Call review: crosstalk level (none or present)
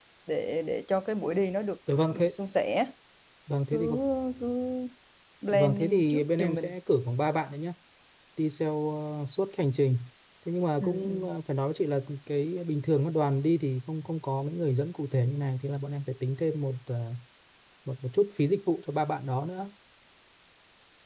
present